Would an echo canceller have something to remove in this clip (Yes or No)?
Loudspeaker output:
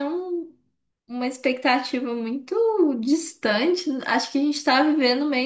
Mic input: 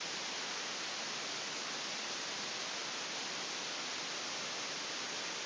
No